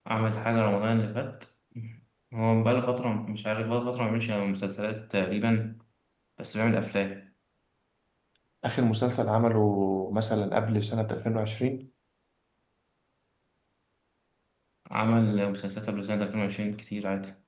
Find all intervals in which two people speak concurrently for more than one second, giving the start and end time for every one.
none

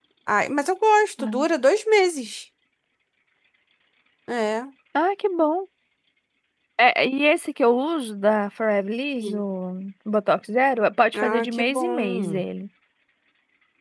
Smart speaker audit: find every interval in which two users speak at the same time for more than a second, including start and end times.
11.1-12.4

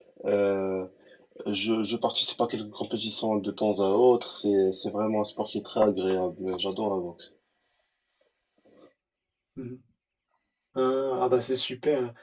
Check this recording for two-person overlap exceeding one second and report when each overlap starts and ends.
none

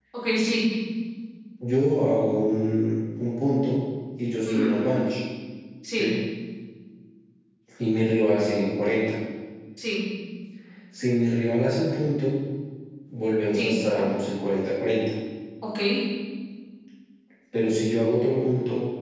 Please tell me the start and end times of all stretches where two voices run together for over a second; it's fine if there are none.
none

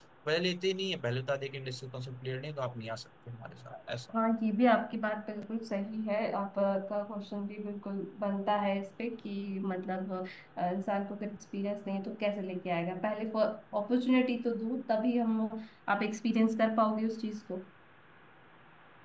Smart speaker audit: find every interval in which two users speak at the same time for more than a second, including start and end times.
none

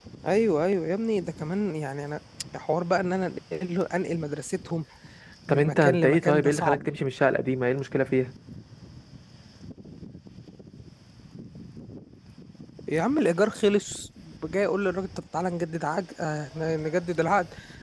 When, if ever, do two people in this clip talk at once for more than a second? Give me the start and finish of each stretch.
5.5-6.8

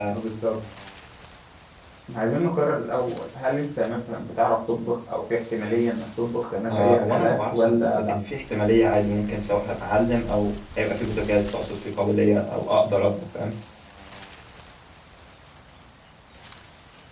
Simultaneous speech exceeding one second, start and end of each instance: 6.7-8.0

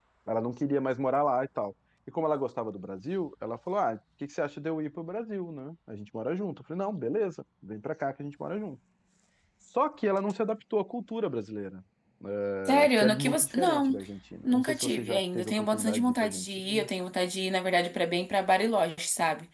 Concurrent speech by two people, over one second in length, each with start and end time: 12.6-14.0, 14.4-16.9

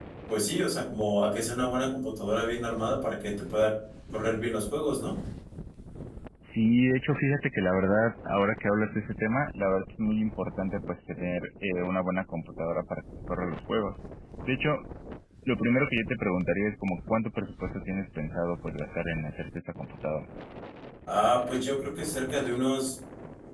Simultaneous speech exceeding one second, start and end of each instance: none

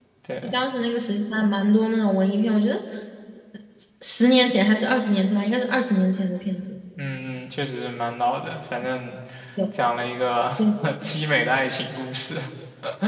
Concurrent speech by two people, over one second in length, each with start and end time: none

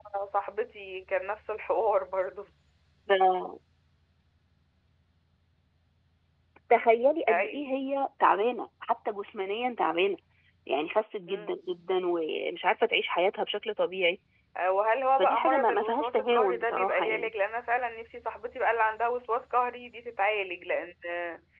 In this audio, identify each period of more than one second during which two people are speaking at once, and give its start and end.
15.2-17.3

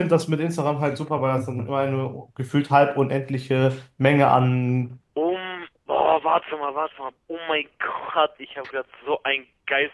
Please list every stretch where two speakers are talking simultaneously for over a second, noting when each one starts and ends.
none

